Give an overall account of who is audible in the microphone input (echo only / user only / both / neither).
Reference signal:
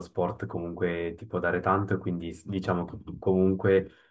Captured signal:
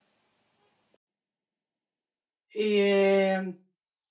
user only